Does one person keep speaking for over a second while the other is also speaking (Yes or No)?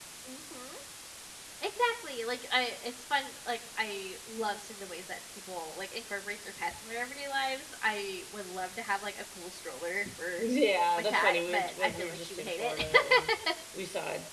Yes